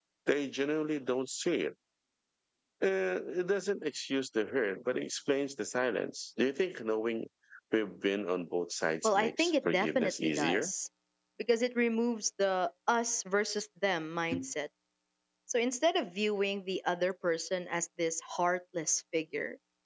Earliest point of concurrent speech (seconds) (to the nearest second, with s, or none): 9 s